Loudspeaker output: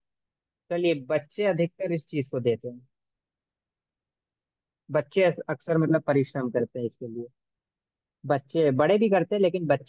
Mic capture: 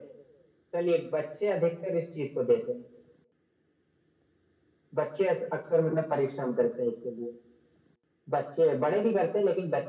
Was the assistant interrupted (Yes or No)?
No